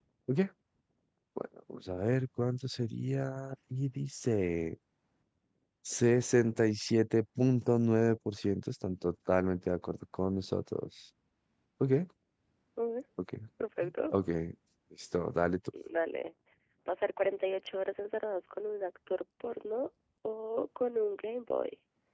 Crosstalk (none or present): none